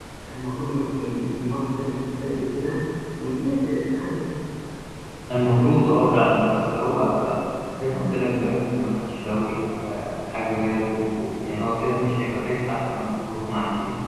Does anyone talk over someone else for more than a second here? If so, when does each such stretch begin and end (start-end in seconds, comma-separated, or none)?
5.3-6.5